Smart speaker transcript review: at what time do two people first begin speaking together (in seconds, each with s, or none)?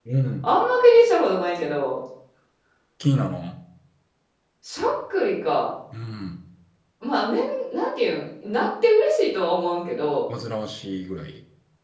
none